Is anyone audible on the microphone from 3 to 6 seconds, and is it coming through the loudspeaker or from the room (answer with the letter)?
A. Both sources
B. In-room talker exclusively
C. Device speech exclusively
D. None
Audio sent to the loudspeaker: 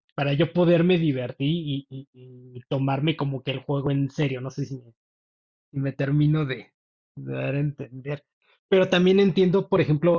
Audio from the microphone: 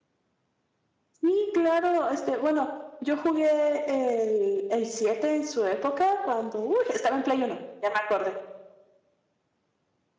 B